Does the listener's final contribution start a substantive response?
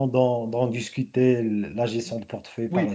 Yes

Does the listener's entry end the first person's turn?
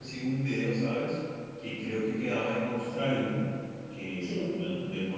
No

